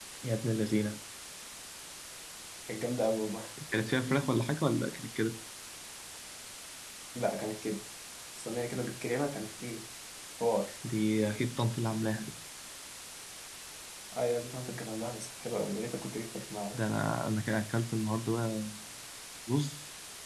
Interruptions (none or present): none